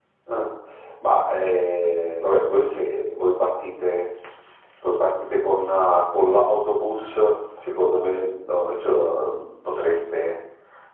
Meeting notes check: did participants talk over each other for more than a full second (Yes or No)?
No